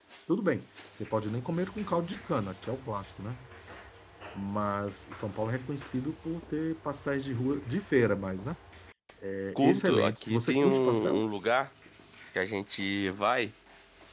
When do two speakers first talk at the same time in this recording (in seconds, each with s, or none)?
9.6 s